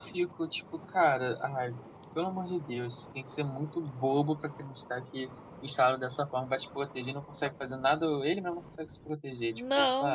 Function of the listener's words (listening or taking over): taking over